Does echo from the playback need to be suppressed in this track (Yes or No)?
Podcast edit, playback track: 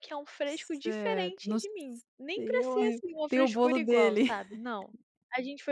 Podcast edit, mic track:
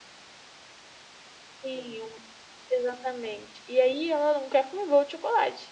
No